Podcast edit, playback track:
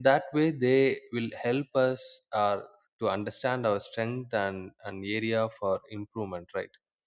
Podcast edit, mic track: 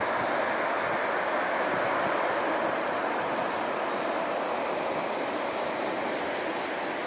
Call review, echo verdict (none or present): none